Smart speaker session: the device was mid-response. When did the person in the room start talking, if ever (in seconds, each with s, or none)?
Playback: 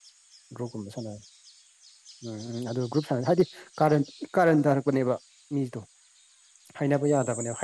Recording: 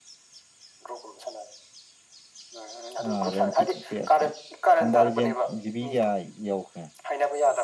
3.1 s